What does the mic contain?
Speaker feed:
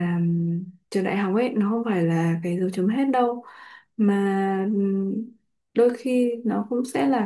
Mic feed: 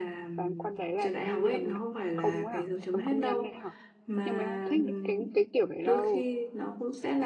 both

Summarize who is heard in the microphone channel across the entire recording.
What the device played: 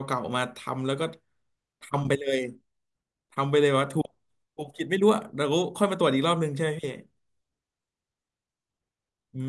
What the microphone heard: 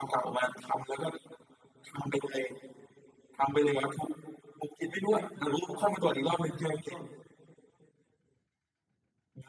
both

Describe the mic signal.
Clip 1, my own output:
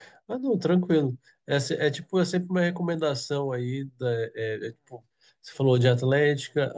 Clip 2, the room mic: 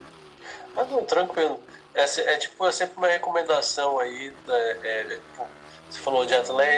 echo only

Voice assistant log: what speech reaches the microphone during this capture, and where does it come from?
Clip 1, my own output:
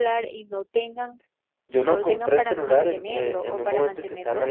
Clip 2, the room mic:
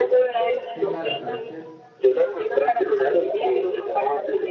both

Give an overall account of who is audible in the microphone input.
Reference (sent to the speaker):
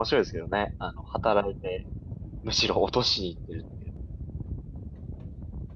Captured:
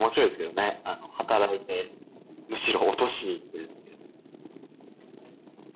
echo only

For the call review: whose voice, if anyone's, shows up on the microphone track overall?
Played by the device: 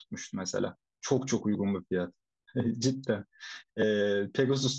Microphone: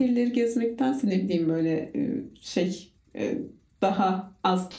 user only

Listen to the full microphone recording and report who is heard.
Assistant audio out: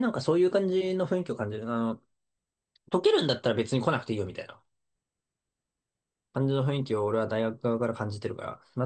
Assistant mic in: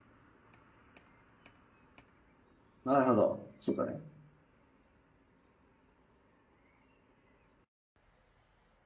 user only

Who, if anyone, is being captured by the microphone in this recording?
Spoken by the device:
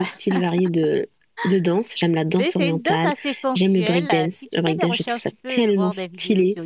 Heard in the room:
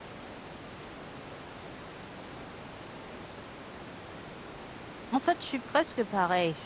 user only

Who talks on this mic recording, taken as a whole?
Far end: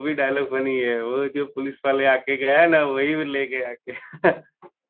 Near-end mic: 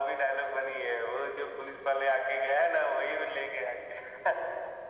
echo only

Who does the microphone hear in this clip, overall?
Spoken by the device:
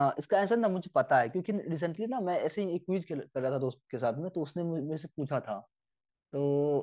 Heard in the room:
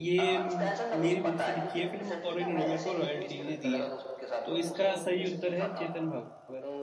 both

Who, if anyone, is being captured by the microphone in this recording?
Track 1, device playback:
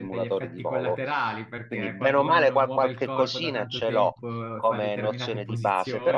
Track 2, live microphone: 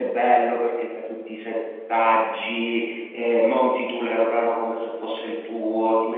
user only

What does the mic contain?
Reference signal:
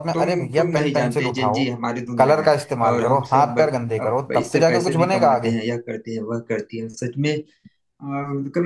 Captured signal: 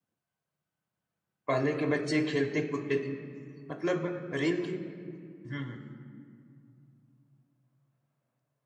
user only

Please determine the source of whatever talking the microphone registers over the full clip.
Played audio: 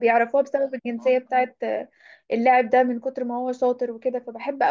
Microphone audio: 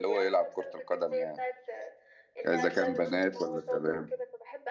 both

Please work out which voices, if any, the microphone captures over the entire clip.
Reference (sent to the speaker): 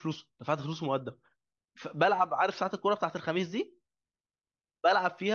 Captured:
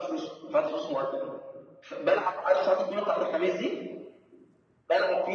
echo only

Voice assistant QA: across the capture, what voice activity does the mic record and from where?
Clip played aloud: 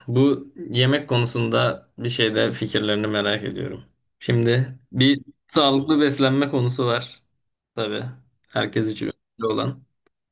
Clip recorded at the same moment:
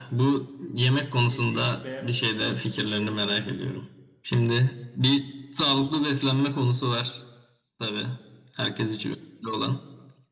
both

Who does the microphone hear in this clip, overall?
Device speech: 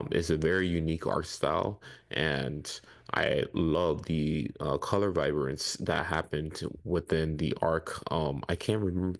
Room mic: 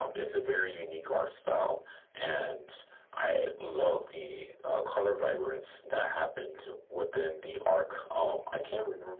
echo only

